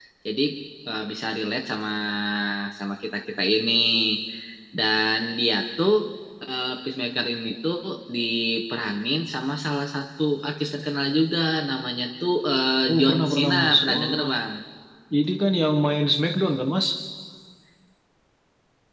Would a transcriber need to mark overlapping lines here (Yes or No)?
Yes